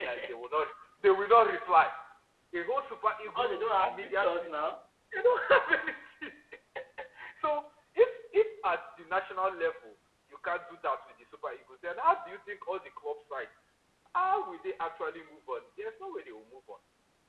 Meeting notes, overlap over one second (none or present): present